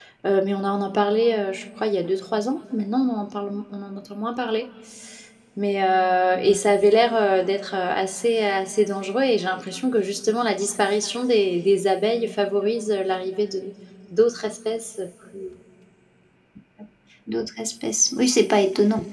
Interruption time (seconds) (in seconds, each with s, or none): none